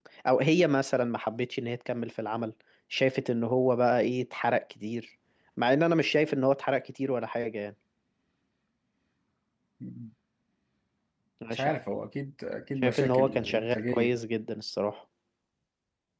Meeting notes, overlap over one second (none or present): present